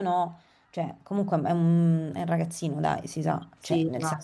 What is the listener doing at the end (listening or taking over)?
listening